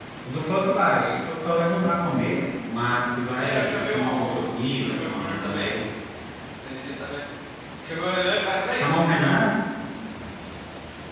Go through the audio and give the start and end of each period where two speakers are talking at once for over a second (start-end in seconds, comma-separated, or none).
3.4-5.7